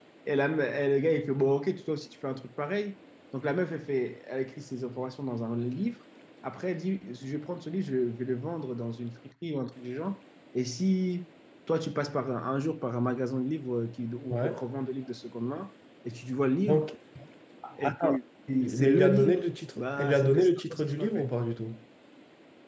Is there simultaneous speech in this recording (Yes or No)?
Yes